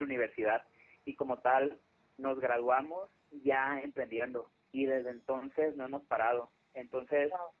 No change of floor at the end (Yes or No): Yes